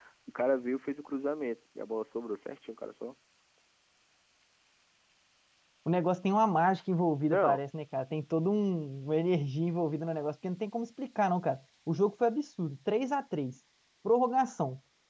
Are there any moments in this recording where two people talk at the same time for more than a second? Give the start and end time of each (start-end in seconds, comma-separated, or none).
none